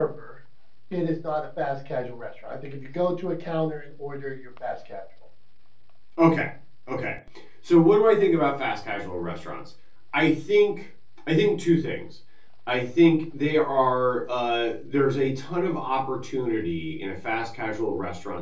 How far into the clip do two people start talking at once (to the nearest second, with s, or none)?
none